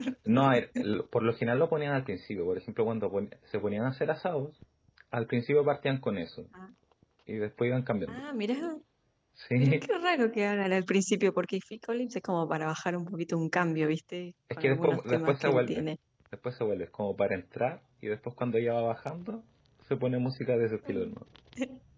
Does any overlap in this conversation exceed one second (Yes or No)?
Yes